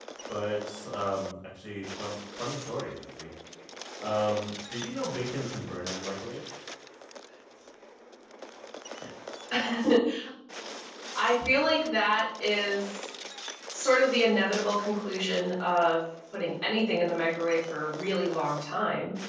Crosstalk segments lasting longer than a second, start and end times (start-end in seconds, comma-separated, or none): none